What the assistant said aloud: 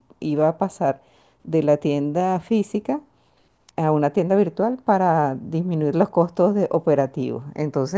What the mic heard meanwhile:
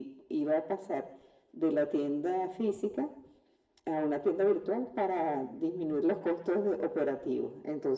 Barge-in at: none

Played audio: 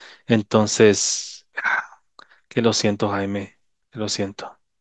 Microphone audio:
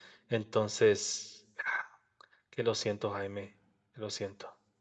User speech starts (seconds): none

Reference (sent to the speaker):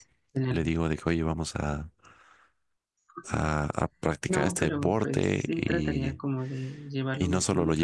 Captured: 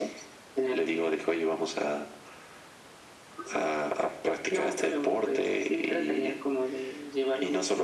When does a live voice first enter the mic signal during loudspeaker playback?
none

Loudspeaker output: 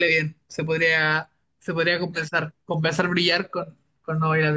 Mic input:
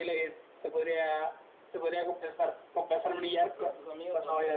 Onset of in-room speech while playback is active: 3 s

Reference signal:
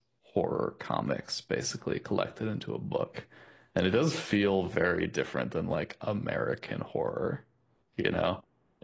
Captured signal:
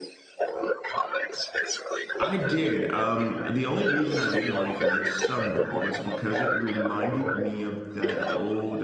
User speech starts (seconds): 2 s

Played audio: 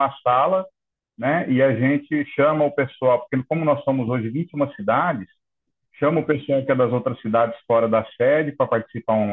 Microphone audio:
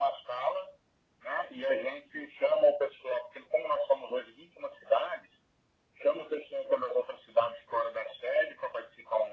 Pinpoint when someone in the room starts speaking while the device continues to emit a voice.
none

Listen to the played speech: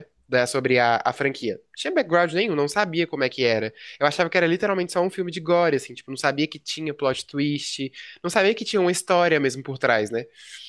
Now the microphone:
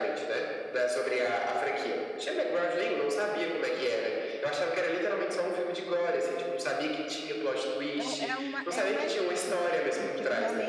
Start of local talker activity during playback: 8 s

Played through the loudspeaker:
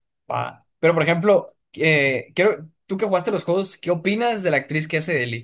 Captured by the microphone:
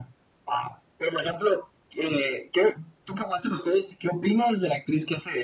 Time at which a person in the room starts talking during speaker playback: none

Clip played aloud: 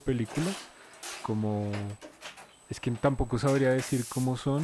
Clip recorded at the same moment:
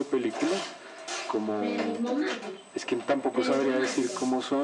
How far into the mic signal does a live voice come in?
2 s

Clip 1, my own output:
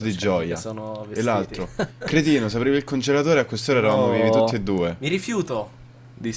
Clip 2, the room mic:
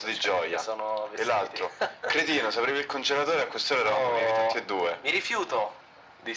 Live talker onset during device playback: none

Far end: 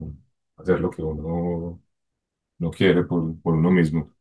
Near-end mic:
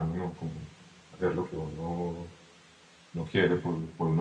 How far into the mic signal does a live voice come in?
none

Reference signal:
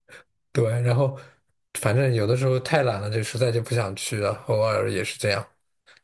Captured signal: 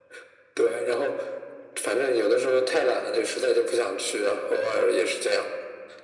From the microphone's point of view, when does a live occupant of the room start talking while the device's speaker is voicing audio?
none

